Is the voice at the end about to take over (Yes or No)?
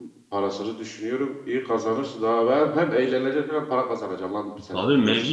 Yes